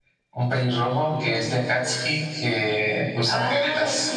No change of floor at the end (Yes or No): No